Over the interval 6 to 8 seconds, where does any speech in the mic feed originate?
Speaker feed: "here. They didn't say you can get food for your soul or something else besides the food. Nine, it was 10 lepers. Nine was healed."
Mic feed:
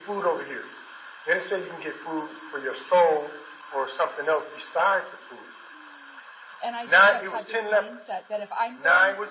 both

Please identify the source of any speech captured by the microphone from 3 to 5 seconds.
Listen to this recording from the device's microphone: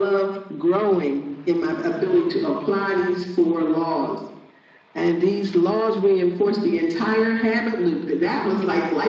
echo only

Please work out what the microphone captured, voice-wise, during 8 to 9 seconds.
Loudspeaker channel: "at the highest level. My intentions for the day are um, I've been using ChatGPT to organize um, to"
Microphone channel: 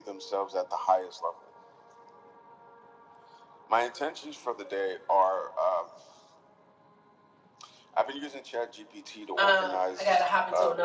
echo only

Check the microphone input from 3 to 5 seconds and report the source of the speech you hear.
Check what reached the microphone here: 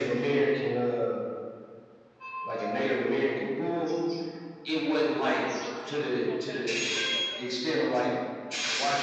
echo only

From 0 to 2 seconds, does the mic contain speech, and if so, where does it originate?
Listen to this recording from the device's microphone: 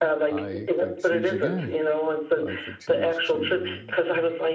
both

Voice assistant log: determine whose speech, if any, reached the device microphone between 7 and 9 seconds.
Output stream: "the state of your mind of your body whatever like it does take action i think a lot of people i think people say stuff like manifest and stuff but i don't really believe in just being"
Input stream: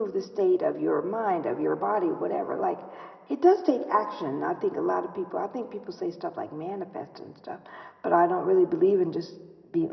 echo only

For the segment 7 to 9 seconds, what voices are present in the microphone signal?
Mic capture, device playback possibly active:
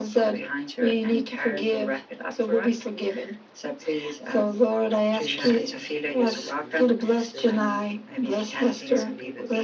both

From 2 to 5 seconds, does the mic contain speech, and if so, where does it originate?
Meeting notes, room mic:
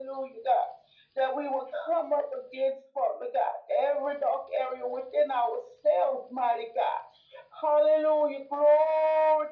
echo only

